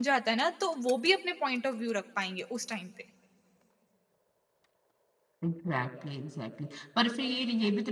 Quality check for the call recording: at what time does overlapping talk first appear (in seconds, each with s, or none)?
none